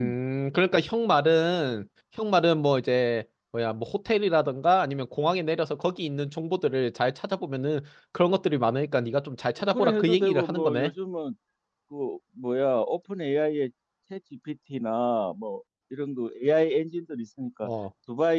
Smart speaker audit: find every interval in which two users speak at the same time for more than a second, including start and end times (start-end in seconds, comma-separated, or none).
9.7-10.9